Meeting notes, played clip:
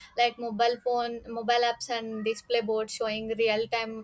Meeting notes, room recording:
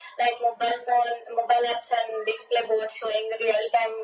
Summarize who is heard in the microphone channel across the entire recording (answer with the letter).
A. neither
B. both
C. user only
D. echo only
D